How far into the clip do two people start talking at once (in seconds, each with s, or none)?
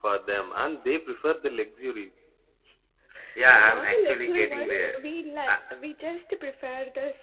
3.5 s